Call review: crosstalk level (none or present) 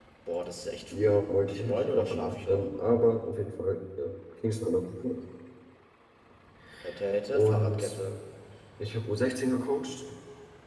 present